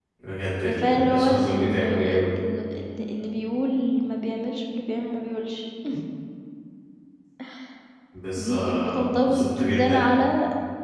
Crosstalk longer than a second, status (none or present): present